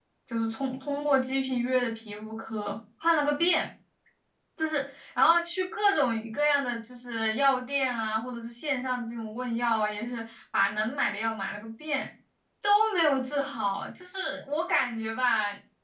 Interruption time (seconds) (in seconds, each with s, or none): none